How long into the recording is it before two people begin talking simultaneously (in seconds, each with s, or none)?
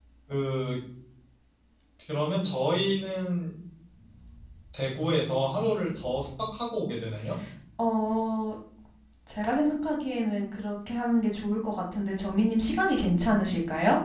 none